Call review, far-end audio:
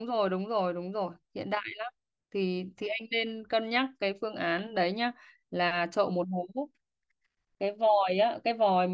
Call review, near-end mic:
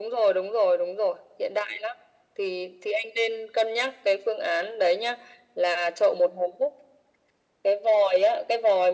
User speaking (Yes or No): No